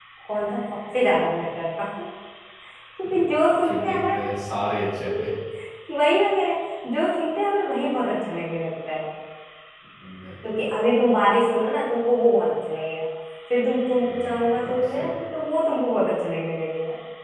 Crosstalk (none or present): present